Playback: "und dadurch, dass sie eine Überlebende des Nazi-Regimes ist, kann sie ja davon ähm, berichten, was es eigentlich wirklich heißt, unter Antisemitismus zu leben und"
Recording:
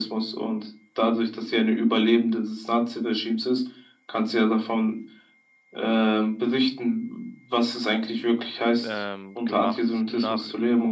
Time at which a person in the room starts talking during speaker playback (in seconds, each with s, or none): 8.8 s